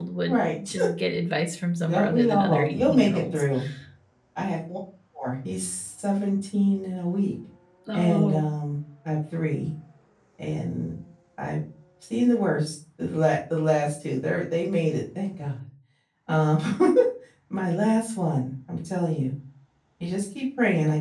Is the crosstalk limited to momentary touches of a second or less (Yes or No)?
No